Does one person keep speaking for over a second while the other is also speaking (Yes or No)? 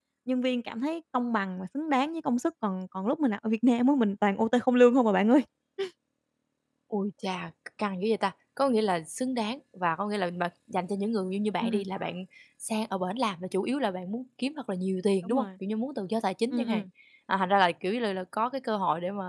No